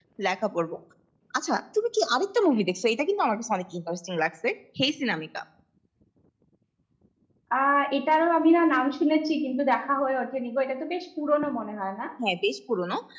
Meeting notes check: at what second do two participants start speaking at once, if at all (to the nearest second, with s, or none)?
none